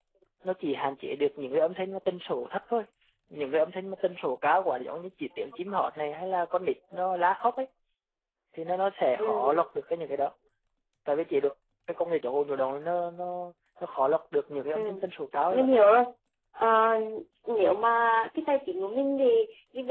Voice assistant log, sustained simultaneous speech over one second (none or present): none